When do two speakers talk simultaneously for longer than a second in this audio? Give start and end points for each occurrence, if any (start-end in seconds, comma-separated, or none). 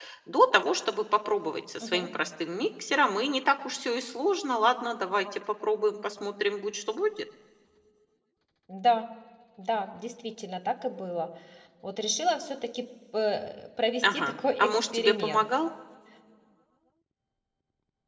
14.0-15.4